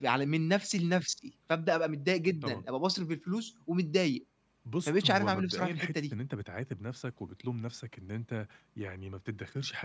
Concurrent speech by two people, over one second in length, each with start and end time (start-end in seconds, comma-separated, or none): 4.9-6.1